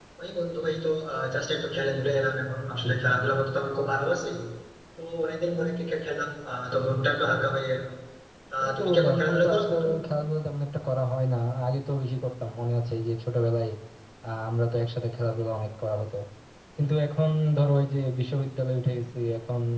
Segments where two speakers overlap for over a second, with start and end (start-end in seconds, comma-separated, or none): 8.6-9.9